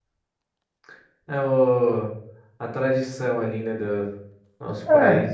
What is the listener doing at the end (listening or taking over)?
listening